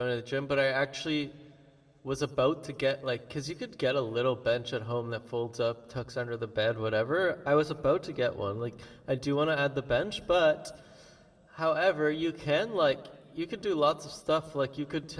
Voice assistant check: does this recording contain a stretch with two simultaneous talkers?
No

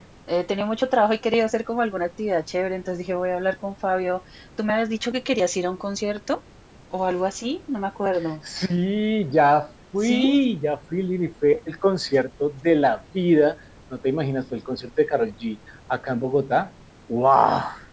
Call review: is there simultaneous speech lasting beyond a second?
No

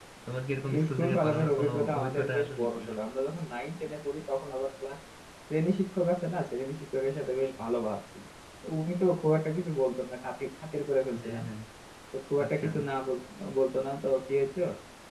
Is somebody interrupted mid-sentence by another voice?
Yes, from 0.9 s

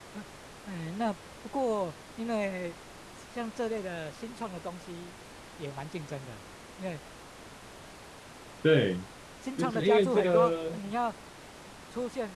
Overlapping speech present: Yes, from 9.6 s

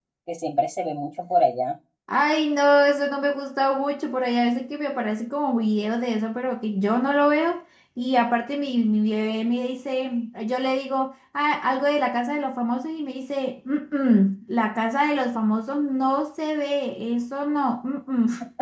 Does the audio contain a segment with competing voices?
No

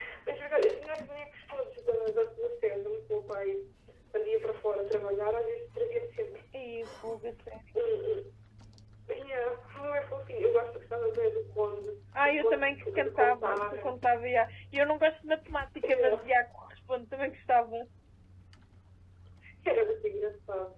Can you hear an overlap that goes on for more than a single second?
Yes, from 12.2 s

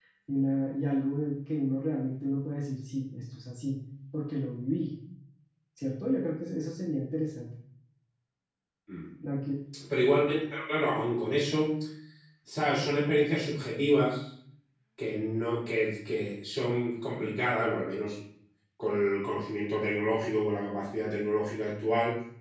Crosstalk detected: No

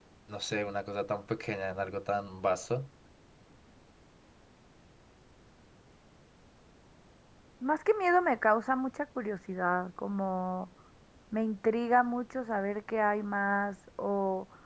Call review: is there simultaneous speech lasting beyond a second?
No

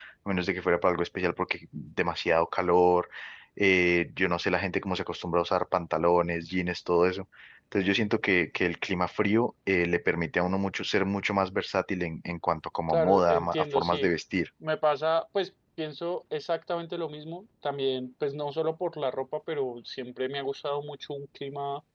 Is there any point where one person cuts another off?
Yes, from 12.9 s

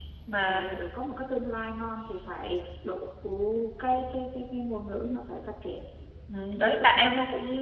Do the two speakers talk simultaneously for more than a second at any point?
No

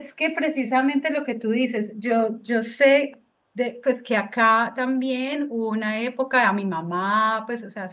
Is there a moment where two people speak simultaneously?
No

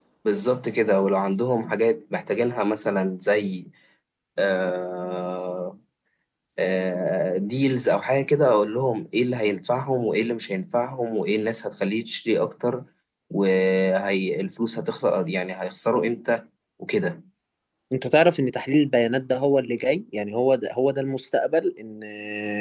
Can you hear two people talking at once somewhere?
No

